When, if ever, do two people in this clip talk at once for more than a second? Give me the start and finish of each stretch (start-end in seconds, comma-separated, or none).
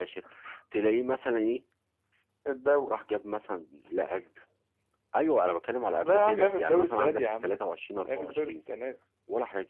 6.0-7.5